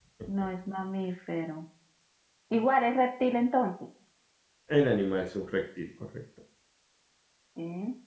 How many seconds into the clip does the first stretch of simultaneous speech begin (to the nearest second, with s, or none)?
none